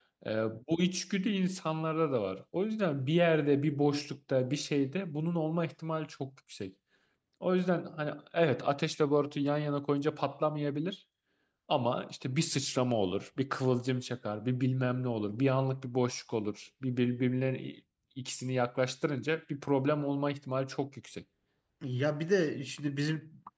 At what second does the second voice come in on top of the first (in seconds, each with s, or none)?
none